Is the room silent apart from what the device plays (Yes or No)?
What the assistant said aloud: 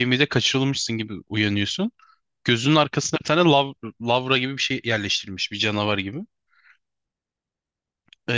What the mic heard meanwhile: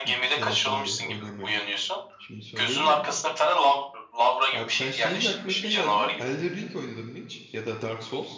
No